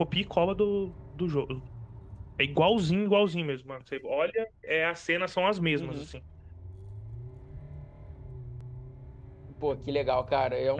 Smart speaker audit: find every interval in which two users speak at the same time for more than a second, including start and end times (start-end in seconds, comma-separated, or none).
none